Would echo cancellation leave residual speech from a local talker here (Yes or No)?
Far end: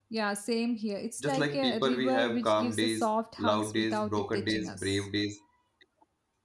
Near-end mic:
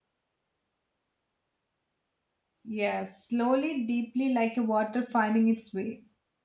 Yes